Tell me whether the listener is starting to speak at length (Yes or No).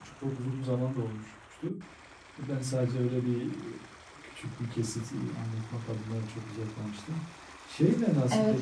No